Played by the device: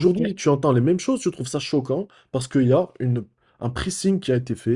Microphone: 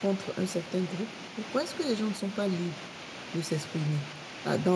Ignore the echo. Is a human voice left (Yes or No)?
Yes